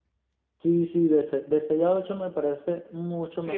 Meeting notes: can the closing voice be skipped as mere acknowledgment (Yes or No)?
No